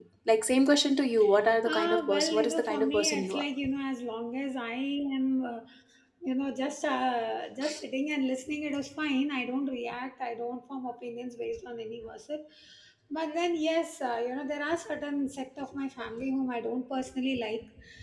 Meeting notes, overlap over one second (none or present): present